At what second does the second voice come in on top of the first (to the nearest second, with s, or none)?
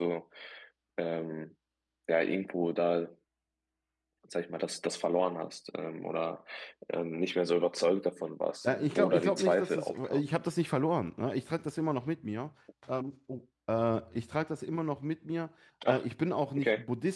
9 s